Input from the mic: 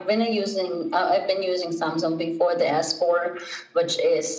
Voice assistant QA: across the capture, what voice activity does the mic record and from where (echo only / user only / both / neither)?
echo only